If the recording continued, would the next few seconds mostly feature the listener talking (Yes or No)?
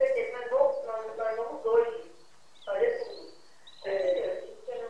No